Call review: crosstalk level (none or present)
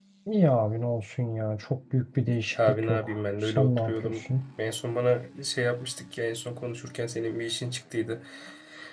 present